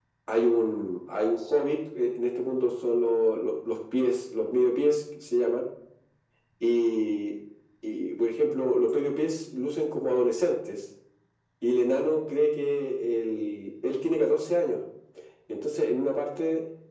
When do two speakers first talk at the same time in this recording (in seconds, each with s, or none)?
none